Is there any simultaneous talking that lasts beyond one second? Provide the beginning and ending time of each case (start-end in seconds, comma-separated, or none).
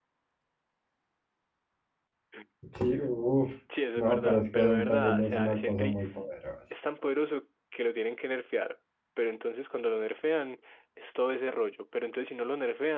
4.0-6.0